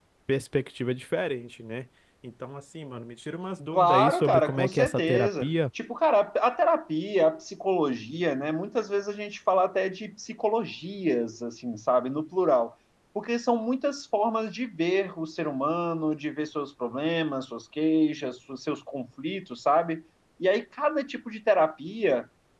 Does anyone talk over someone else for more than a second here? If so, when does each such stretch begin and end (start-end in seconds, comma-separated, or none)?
3.7-5.5